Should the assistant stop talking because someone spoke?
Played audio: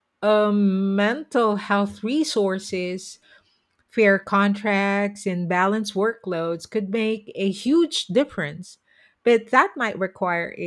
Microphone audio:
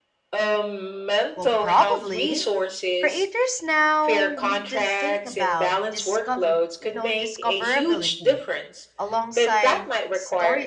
Yes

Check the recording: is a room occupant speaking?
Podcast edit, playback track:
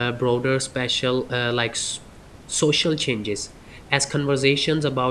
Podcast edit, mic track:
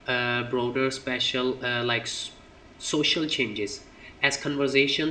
No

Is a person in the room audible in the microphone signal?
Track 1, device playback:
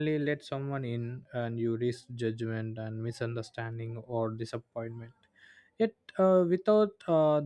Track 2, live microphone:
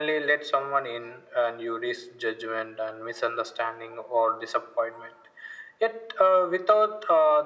No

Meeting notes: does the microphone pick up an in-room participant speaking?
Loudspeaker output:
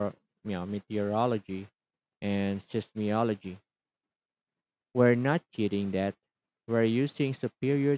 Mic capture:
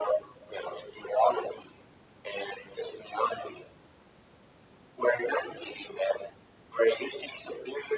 No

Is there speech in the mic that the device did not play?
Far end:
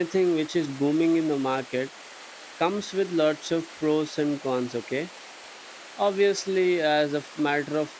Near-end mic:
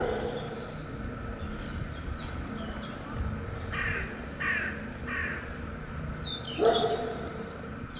No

